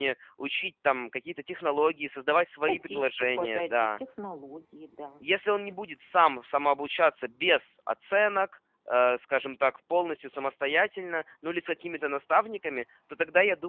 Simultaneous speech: Yes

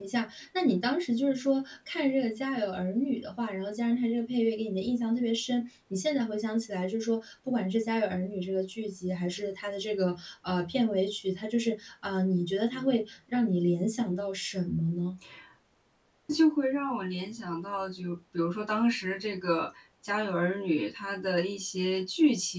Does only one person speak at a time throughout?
Yes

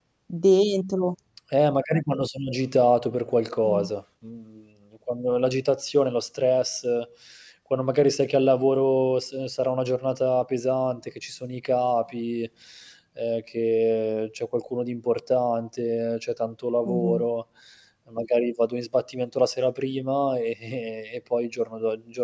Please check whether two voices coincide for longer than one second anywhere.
No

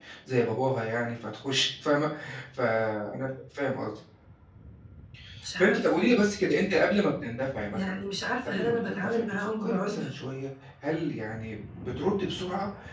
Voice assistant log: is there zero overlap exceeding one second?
No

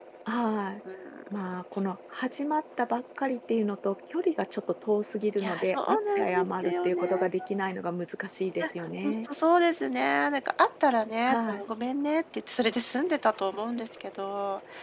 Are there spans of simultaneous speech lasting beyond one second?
Yes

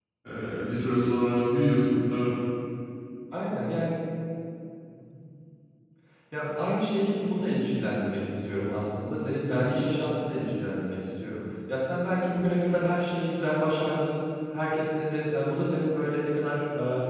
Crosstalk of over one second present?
No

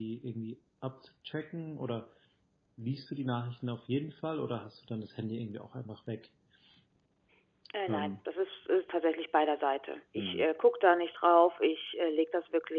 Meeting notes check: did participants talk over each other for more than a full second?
No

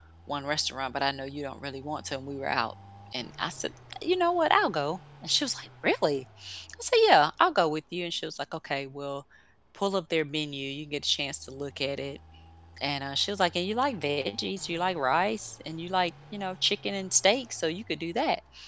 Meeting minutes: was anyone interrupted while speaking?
No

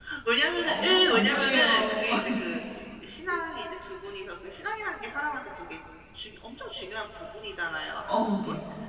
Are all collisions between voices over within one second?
No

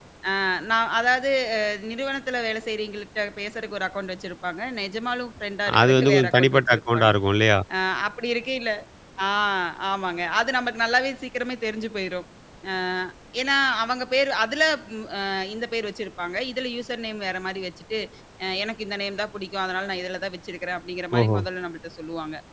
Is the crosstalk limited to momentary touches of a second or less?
No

